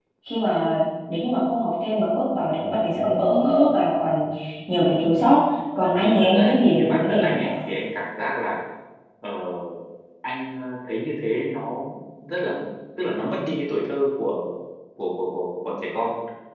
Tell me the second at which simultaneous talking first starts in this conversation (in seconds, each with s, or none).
6.0 s